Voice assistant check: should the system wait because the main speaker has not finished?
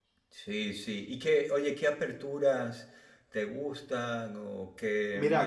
No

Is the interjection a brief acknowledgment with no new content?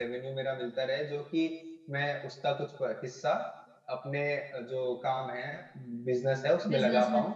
Yes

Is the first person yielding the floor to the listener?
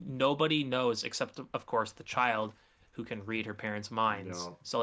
No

